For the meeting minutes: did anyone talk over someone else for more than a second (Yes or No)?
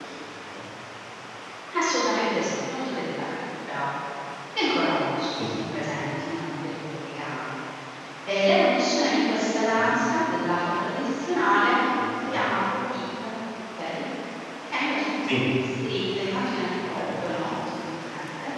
No